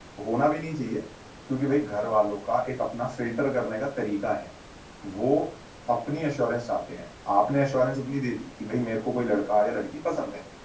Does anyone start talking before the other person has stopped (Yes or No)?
No